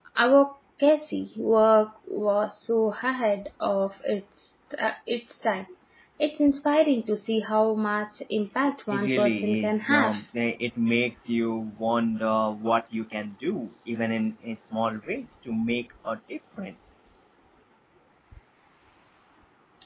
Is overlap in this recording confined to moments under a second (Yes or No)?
No